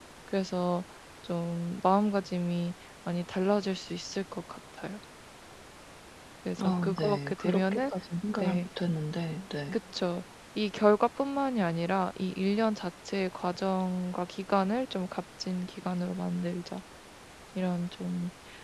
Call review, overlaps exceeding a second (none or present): present